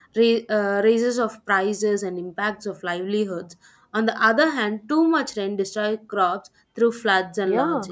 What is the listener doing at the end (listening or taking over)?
taking over